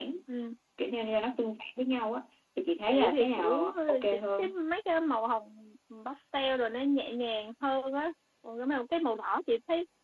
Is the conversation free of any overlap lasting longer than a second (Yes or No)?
No